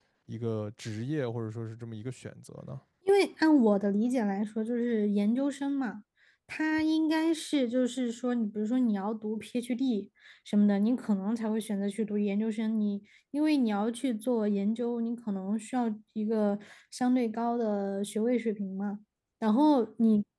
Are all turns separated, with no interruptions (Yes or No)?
Yes